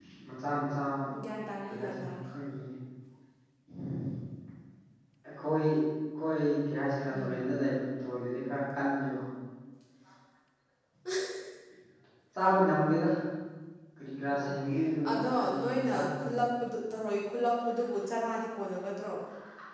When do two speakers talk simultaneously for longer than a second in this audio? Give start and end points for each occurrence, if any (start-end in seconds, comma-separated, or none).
15.1-16.3